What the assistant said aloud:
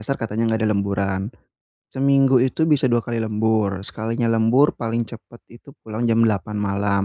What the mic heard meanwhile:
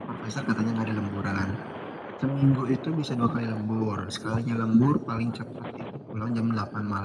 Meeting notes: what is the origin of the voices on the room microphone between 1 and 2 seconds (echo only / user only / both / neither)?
echo only